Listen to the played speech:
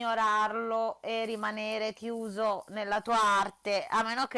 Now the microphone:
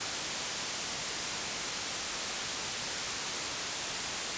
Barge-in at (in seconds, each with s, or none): none